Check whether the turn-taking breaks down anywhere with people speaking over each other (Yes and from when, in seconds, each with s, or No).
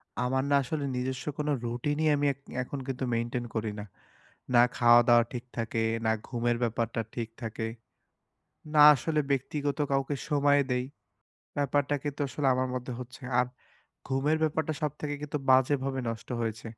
No